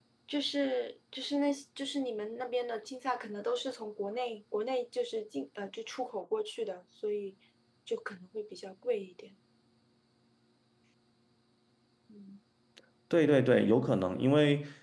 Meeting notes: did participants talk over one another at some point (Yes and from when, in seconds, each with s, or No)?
No